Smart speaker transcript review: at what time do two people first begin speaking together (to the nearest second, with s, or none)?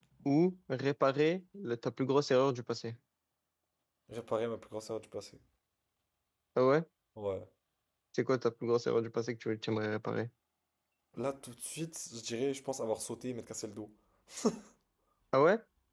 none